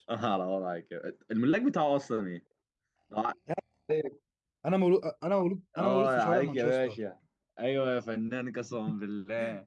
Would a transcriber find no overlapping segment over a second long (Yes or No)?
No